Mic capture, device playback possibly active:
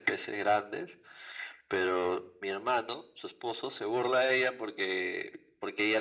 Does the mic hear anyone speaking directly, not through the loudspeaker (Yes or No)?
No